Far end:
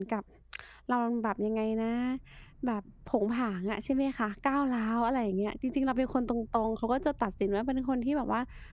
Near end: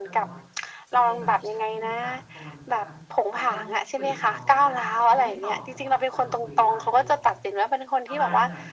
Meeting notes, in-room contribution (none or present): present